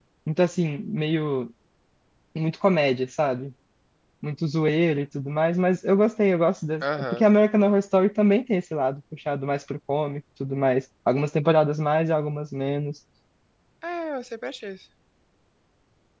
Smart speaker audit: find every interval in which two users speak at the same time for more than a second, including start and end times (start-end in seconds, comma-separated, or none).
none